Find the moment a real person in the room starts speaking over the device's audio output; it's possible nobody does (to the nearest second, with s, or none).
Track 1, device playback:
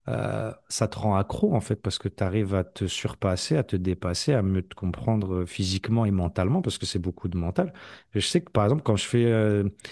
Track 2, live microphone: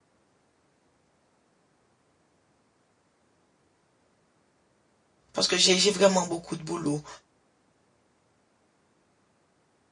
5 s